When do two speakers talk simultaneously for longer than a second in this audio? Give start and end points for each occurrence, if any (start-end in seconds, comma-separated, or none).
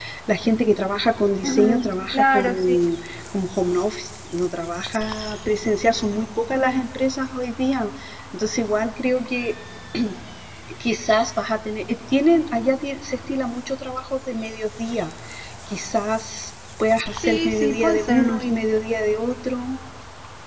1.4-2.9, 17.1-18.5